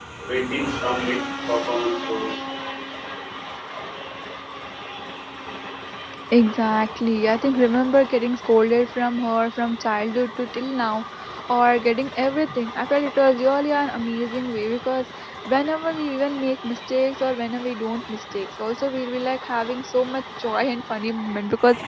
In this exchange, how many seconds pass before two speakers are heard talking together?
none

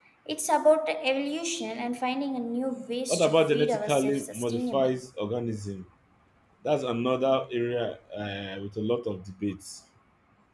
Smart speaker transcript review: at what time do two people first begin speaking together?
3.1 s

